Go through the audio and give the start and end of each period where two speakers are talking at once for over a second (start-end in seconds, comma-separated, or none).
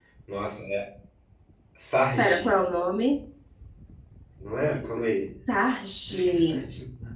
none